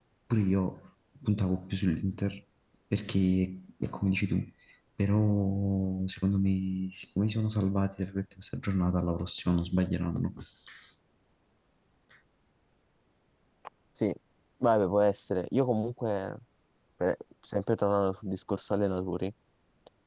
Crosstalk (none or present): none